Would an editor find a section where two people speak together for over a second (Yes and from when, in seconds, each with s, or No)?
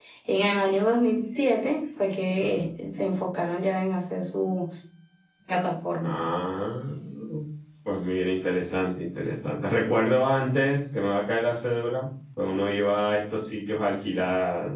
No